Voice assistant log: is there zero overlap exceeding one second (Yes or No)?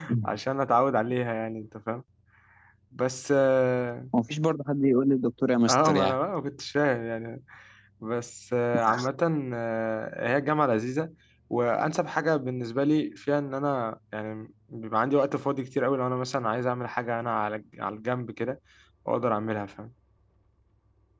Yes